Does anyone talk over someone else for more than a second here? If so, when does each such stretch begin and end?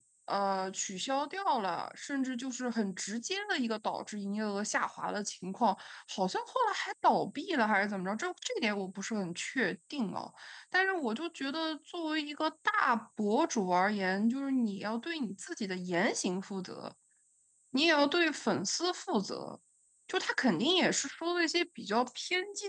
none

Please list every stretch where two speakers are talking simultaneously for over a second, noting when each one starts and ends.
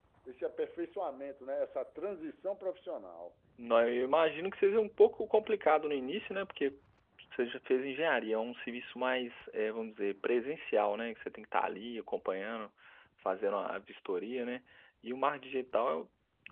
none

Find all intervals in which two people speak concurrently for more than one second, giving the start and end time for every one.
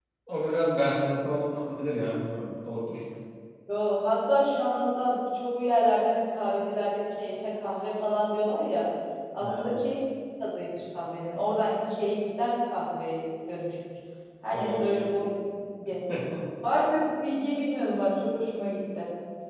none

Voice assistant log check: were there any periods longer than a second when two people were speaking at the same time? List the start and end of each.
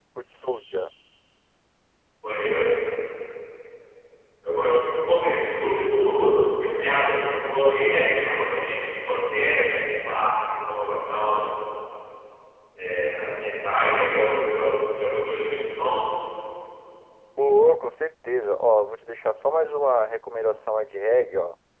none

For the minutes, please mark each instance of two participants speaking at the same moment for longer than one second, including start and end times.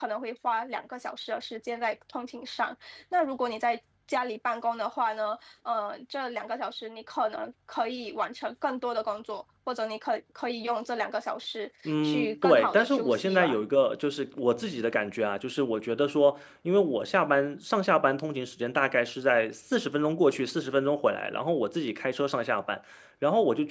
11.8-13.6

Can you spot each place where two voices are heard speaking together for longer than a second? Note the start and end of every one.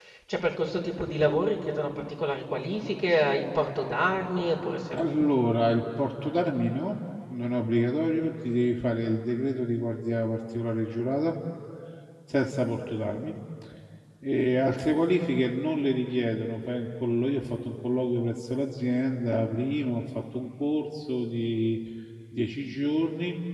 none

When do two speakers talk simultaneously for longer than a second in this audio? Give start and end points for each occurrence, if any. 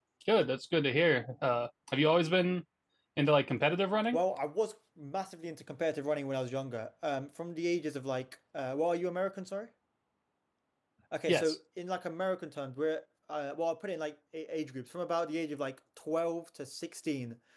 none

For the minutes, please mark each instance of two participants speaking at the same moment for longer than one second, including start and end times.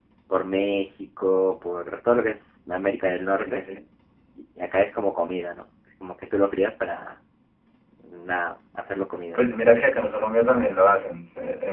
none

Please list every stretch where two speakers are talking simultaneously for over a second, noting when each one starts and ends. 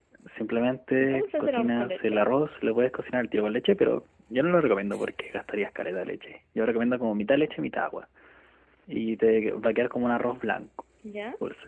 1.0-2.2

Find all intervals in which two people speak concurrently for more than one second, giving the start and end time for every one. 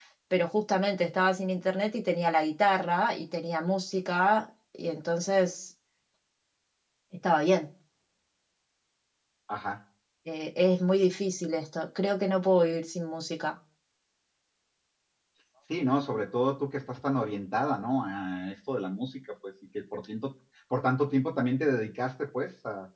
none

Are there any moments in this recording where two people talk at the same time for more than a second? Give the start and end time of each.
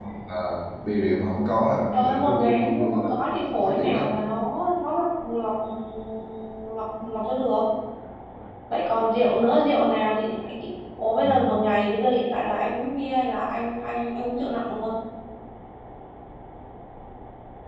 1.9-3.1

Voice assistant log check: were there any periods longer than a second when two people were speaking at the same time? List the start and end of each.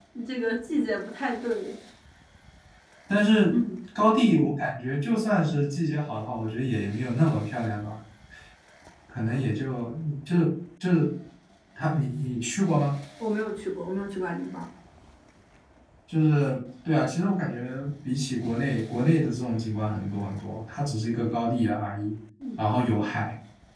none

